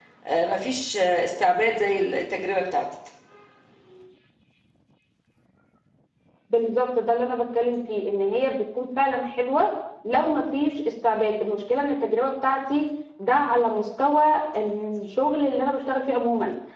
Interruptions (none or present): none